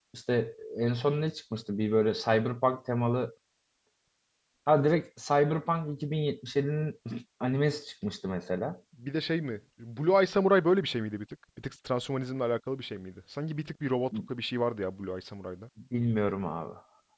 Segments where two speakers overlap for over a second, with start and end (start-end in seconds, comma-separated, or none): none